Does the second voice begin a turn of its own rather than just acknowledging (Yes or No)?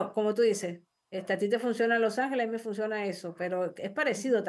No